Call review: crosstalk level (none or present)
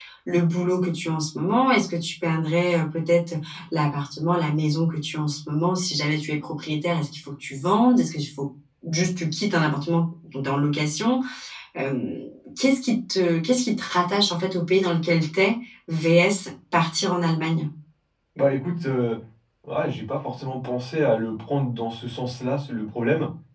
none